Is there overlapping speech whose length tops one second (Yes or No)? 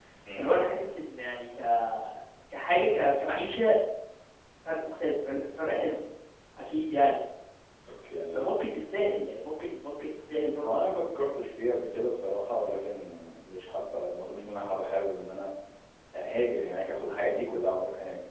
No